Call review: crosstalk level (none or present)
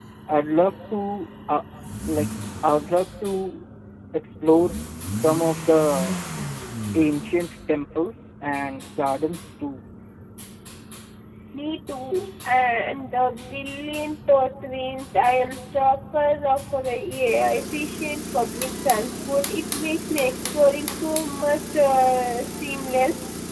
none